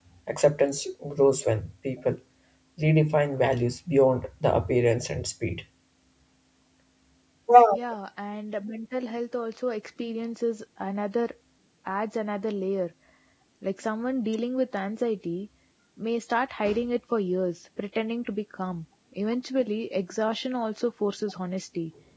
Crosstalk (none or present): none